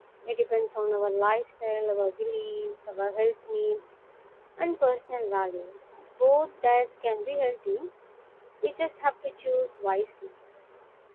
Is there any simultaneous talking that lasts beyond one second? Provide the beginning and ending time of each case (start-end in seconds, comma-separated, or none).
none